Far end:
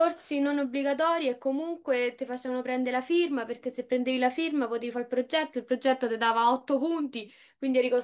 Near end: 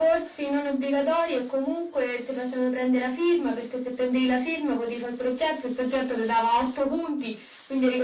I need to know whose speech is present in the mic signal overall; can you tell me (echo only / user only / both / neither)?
echo only